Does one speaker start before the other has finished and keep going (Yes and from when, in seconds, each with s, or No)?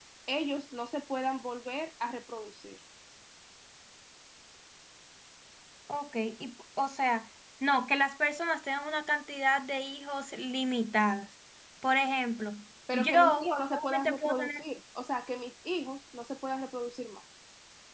Yes, from 12.9 s